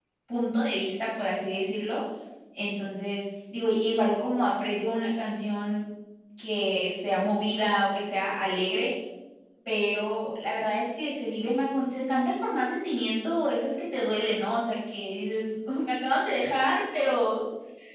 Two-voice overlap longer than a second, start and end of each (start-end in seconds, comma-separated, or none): none